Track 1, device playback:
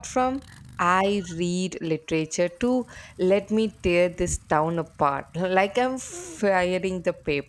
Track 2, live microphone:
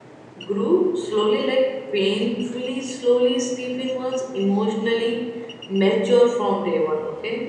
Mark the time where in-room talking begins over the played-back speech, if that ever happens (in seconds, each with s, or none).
0.4 s